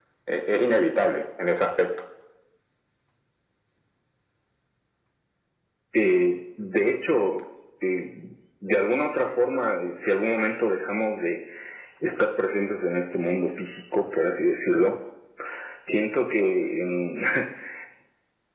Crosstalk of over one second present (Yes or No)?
No